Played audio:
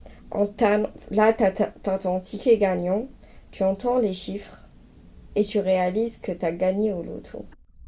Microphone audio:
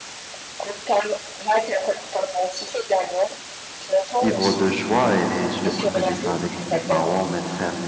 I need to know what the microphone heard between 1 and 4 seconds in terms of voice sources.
echo only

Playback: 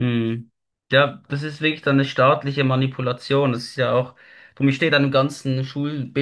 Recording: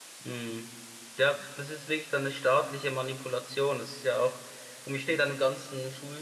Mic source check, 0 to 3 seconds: echo only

